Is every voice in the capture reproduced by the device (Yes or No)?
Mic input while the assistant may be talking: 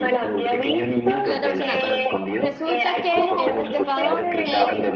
No